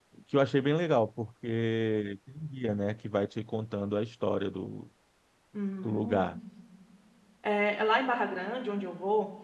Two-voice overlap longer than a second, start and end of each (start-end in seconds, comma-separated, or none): none